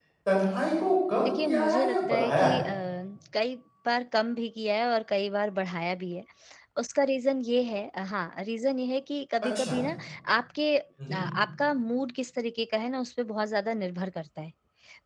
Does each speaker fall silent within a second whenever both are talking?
No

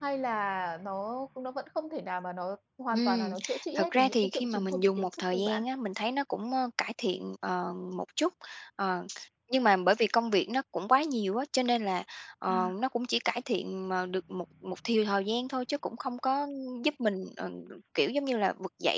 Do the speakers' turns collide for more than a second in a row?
Yes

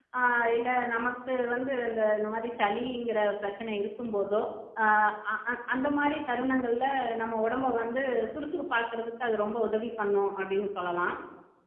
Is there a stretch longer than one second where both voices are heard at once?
No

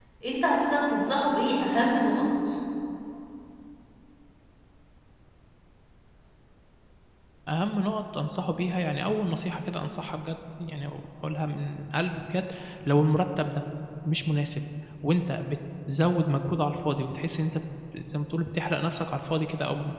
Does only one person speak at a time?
Yes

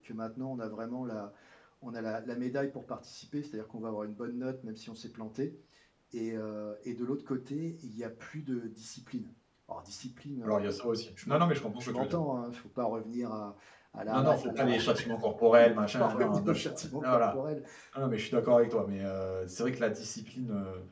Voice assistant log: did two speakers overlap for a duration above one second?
Yes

